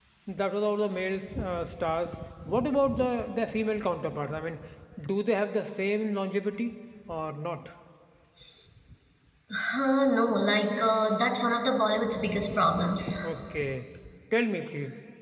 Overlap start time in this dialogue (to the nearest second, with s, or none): none